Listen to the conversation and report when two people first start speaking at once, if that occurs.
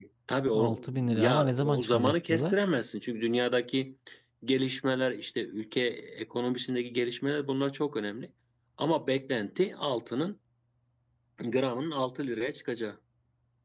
1 s

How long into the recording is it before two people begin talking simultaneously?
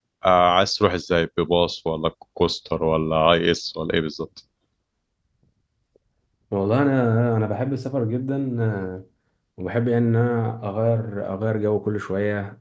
none

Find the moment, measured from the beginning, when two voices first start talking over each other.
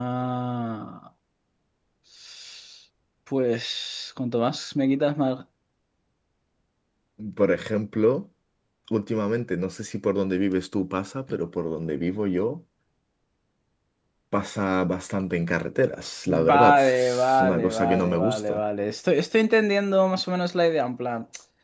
16 s

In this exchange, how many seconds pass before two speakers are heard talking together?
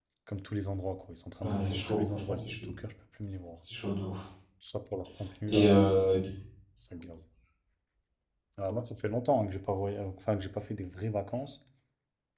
1 s

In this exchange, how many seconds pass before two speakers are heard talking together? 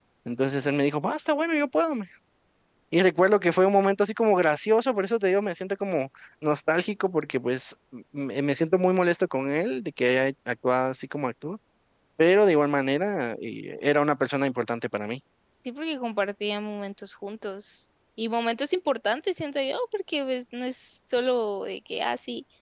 none

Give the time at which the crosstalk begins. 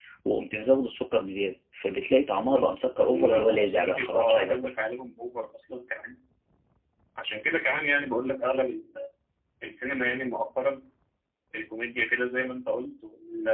2 s

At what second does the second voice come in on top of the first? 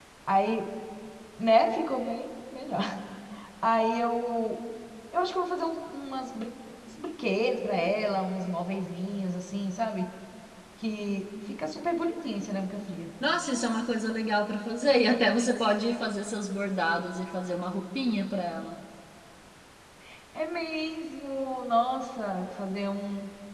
none

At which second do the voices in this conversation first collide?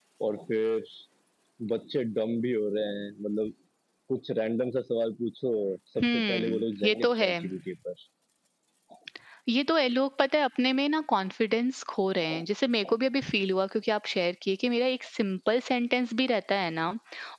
6 s

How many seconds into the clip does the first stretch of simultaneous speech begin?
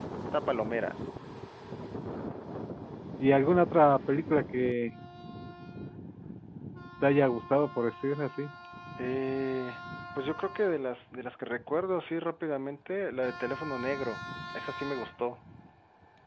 none

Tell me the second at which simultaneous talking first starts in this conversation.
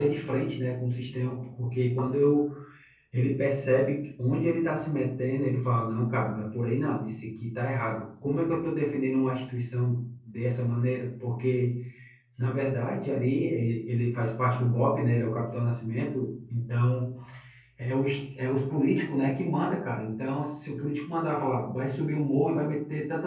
none

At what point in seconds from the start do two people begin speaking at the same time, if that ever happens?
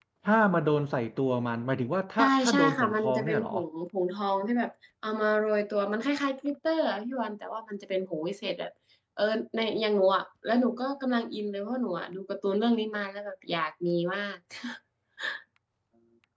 2 s

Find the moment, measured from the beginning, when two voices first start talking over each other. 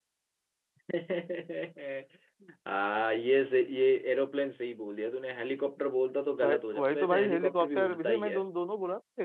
6 s

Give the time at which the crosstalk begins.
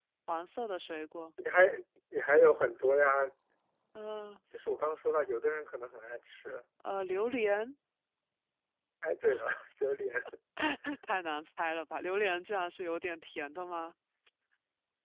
none

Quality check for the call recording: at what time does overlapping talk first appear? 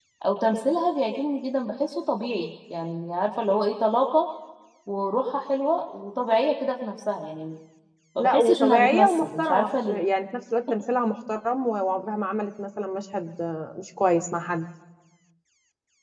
8 s

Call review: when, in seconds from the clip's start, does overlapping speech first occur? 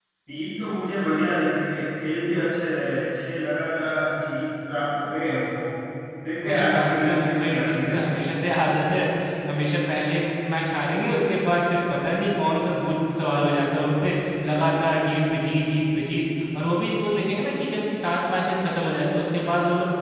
6 s

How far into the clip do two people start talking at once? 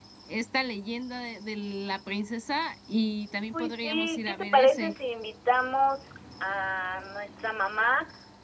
4 s

